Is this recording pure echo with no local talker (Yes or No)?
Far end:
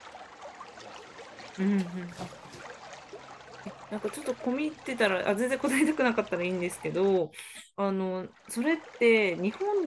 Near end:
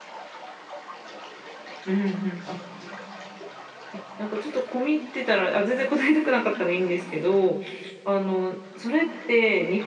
Yes